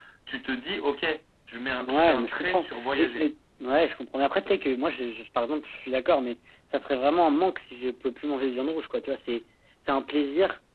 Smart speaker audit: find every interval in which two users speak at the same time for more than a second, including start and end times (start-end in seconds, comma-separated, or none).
1.8-3.2